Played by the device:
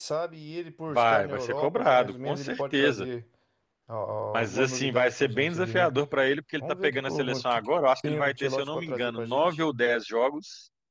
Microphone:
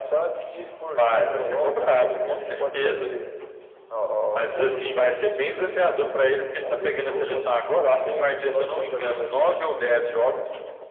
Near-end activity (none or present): none